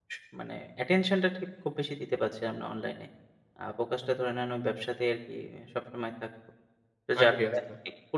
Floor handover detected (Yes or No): No